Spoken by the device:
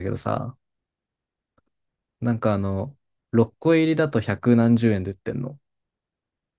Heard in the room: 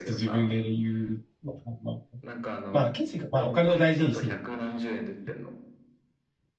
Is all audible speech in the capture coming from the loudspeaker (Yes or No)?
No